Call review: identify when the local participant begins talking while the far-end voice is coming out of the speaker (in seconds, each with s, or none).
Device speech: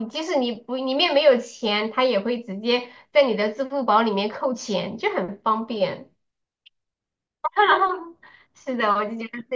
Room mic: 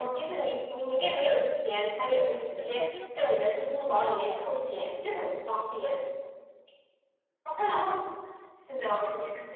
1.7 s